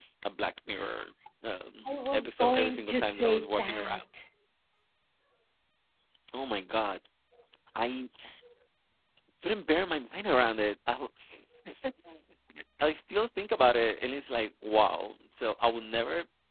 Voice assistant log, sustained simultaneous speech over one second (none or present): present